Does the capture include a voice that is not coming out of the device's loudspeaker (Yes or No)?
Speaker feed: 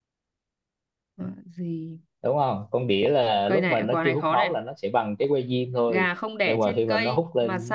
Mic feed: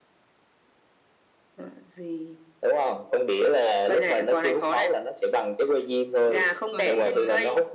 Yes